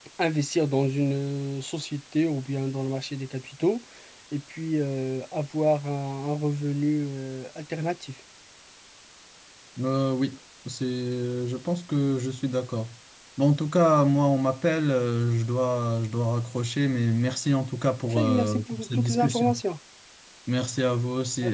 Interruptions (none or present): present